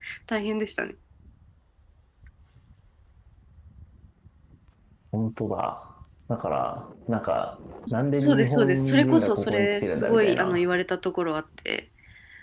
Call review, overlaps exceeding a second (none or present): present